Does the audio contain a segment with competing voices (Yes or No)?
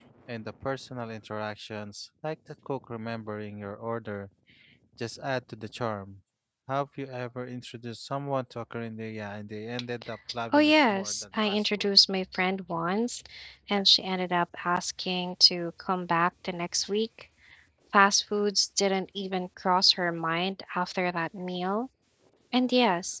Yes